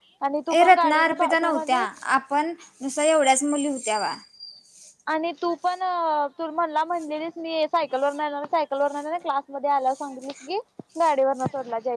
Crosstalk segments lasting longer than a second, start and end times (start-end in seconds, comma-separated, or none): 0.6-1.8